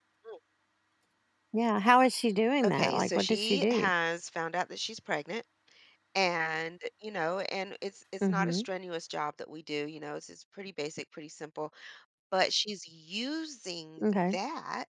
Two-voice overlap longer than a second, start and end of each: 2.6-3.9

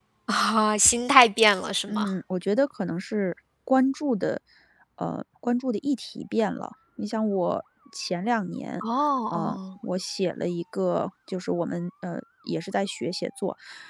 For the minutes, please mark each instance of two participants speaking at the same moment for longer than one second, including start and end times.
none

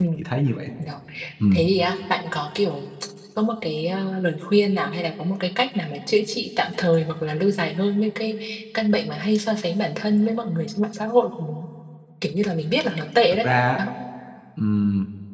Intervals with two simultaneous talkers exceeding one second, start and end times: none

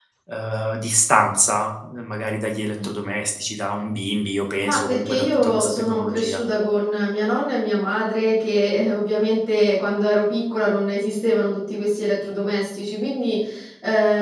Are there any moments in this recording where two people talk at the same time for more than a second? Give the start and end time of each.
4.6-6.4

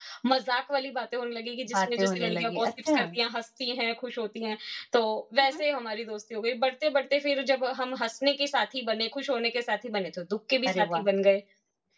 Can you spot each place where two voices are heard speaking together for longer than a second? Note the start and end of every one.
1.7-3.0

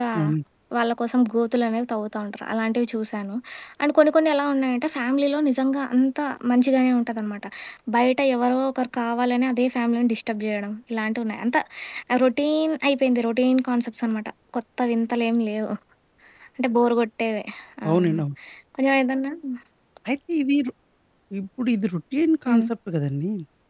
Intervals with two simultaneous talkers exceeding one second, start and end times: none

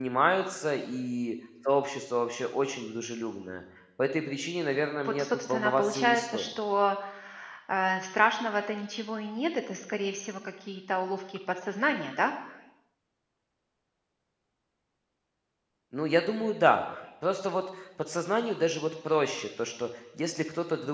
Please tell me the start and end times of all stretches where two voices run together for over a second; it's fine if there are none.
5.0-6.5

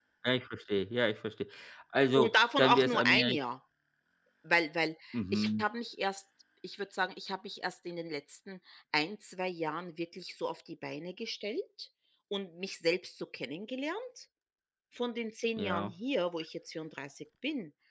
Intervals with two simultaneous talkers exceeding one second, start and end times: 2.2-3.4

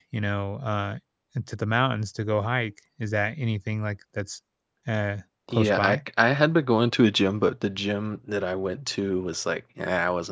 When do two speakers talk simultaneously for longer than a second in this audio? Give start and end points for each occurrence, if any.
none

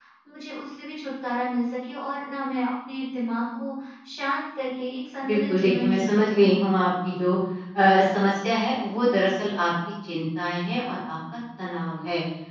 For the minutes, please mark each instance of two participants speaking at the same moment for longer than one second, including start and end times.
5.2-6.5

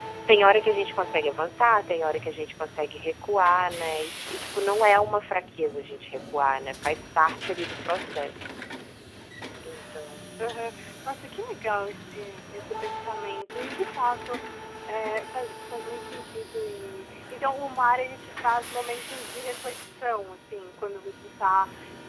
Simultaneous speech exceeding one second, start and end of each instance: none

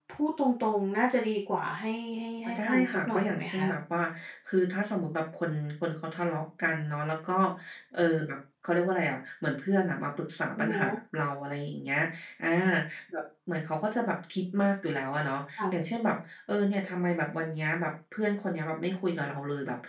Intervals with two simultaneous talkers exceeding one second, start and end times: 2.5-3.7

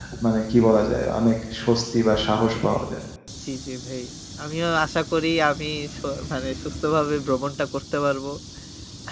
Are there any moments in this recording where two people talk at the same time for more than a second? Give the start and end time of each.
none

